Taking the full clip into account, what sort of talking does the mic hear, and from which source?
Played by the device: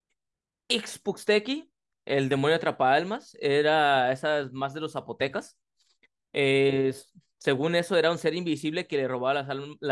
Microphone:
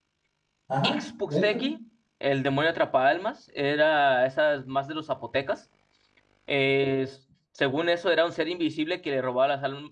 both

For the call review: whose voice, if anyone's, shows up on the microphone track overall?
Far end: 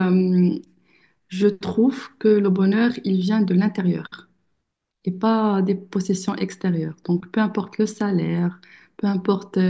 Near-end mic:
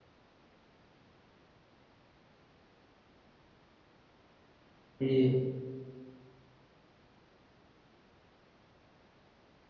user only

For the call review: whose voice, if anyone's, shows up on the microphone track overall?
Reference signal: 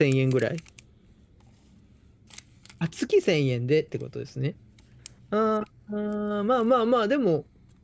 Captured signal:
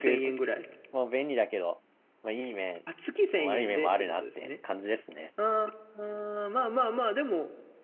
both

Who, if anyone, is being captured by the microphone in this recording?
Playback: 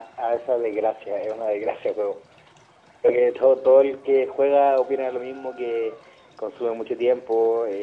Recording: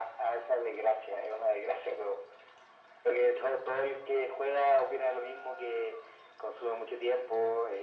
echo only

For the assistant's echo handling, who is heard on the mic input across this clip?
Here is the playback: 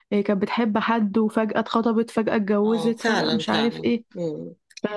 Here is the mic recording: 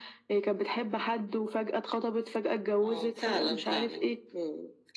echo only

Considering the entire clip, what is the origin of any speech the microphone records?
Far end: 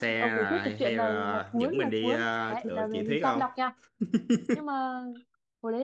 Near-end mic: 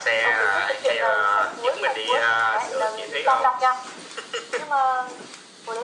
echo only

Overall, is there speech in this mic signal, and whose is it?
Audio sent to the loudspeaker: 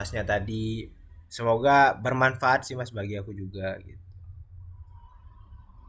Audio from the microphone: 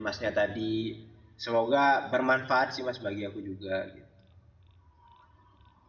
echo only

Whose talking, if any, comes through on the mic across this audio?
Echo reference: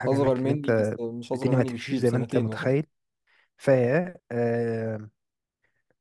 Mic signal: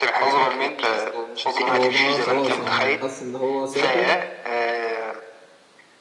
both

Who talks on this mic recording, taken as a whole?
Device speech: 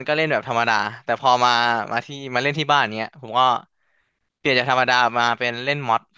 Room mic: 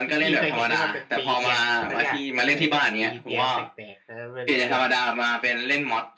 both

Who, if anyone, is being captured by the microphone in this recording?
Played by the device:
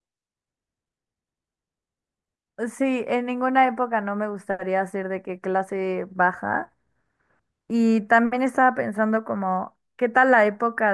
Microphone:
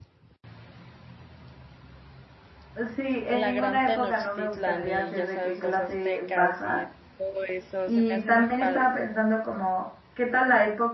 both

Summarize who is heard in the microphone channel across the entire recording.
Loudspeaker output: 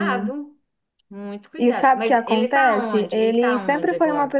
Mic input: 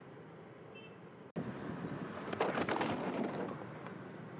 neither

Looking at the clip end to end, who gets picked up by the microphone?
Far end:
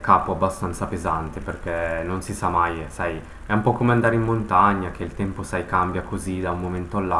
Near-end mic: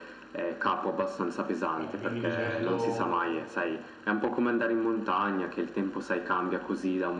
both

